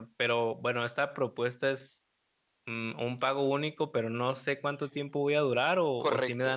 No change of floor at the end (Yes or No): No